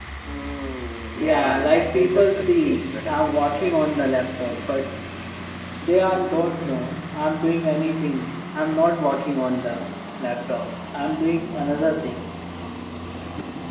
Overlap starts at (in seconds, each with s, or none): 1.2 s